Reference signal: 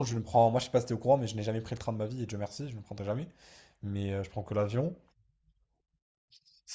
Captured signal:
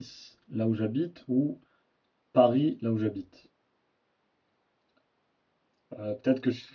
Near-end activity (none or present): present